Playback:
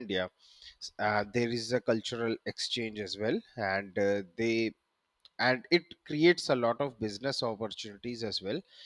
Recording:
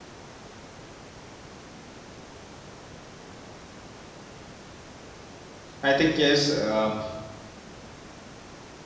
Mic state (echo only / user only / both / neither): user only